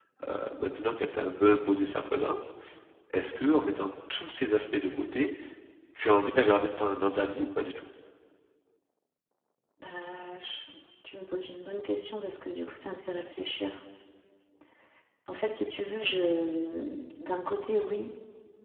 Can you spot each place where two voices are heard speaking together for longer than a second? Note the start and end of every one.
none

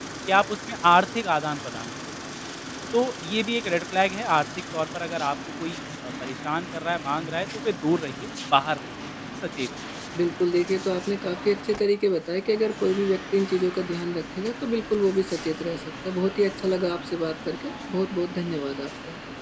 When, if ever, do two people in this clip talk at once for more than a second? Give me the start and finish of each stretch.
none

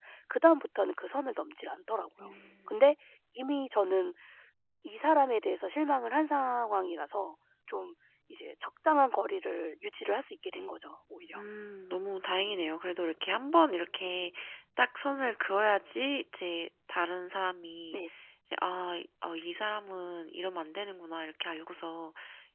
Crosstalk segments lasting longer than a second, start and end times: none

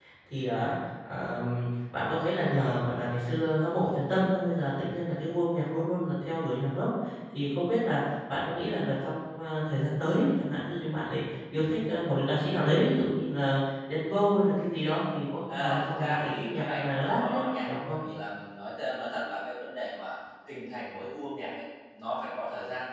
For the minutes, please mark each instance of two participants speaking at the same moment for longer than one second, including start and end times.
15.5-18.0

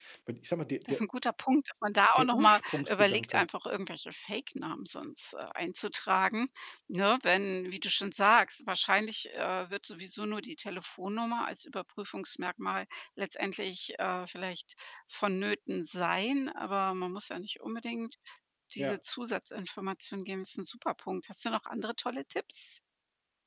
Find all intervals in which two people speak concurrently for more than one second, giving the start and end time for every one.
2.1-3.5

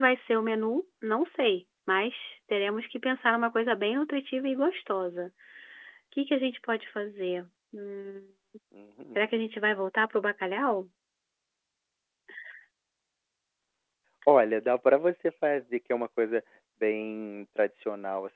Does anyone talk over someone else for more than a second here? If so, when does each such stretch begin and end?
none

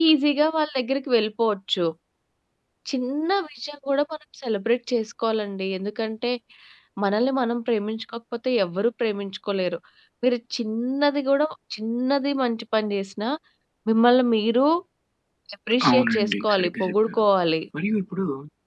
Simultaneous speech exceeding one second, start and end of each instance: 15.9-17.2

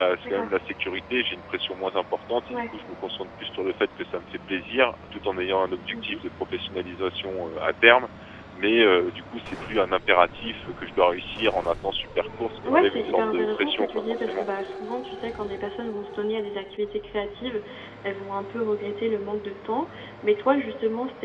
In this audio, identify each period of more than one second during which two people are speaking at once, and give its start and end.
12.7-14.4

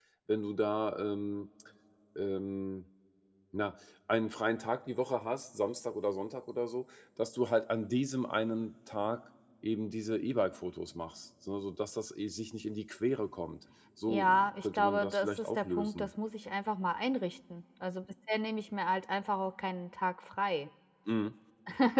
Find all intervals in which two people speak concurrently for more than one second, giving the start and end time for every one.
14.1-16.1

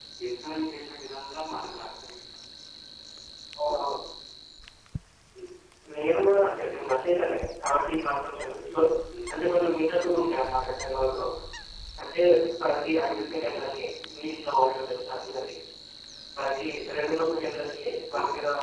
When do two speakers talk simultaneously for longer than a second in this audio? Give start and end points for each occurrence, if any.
none

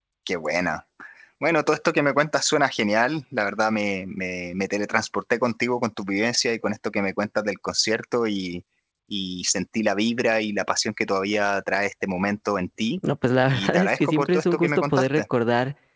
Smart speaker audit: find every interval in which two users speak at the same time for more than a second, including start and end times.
13.5-15.2

